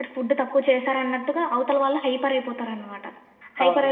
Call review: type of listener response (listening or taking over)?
listening